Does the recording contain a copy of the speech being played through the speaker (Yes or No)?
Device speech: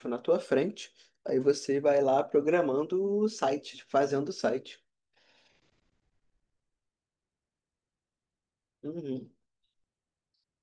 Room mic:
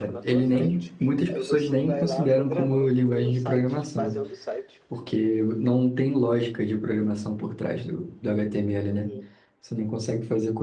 Yes